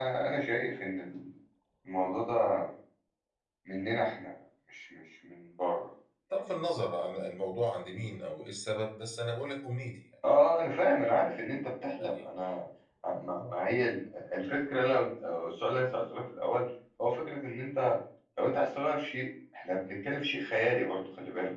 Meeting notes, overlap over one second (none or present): none